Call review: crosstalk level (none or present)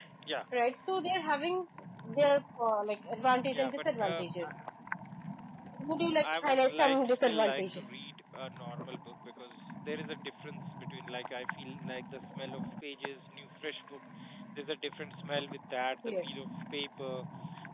present